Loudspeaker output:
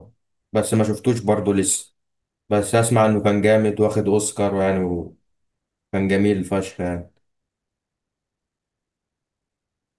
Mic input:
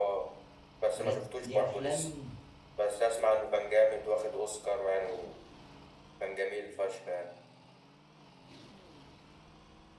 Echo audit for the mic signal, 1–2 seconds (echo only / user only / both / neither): both